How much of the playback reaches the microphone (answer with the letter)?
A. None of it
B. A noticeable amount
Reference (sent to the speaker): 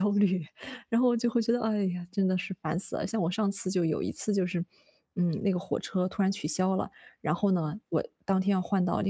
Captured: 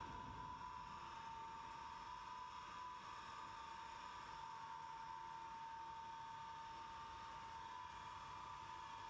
A